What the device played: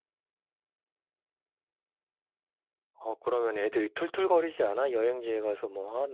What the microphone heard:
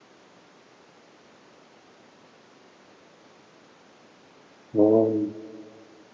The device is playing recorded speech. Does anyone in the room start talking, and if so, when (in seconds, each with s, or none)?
4.7 s